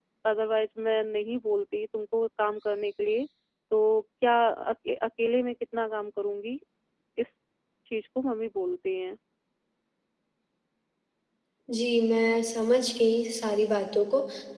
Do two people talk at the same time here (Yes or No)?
No